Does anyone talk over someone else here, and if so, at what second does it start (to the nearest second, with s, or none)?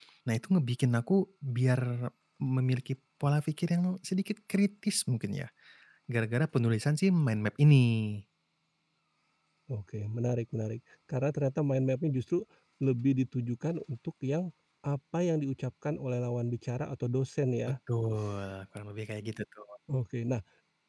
none